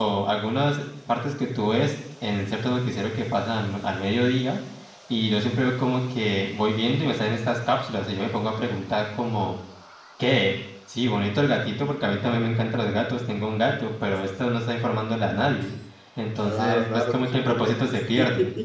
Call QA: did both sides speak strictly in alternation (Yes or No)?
No